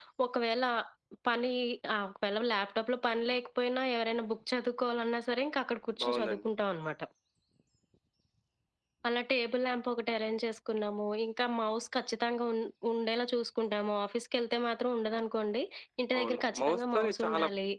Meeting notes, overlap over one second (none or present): present